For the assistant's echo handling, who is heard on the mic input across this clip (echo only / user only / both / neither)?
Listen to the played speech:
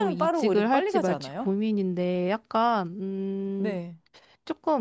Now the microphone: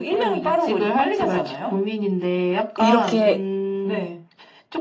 both